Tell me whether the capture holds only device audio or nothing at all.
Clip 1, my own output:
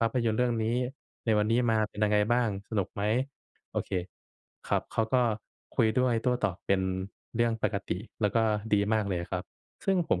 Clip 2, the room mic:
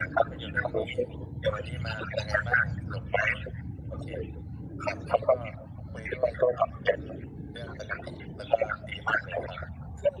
Yes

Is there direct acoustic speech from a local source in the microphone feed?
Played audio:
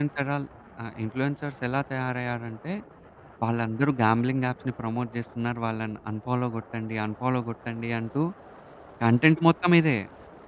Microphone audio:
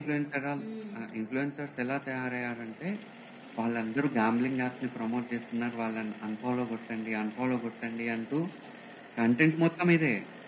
Yes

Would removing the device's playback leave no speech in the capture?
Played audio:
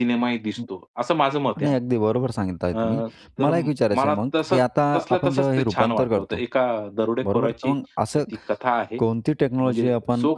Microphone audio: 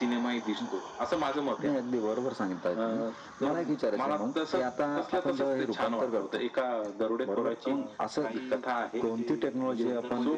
No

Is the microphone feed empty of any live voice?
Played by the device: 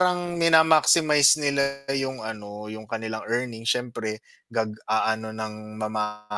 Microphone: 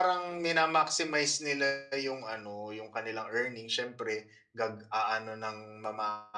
Yes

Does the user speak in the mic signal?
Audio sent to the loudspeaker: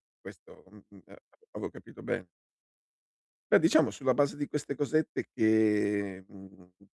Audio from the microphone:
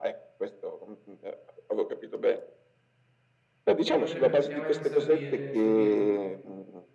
Yes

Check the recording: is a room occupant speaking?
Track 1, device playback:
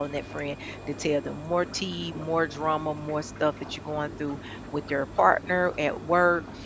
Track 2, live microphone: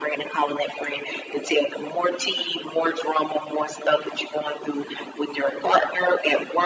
No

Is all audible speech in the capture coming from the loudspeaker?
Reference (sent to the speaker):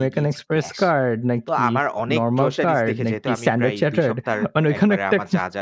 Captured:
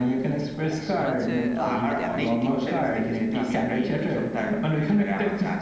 No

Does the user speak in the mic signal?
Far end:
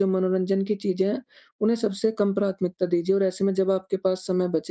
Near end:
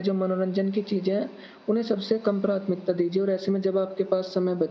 No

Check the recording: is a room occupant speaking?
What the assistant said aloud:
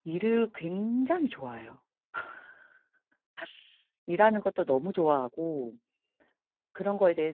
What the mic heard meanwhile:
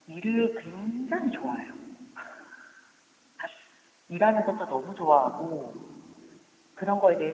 No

